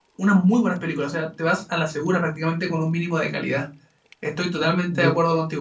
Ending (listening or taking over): listening